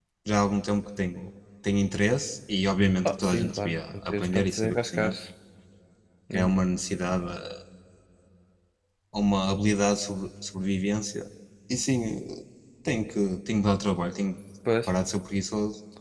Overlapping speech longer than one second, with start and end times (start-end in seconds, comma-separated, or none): 3.0-5.2